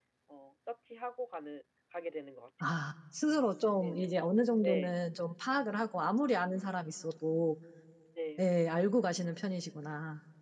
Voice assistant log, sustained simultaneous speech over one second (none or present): none